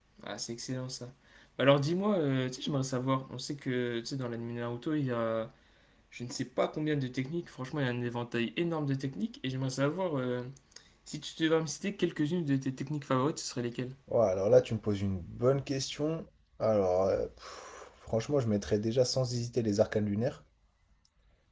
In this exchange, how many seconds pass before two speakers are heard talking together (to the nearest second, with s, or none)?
none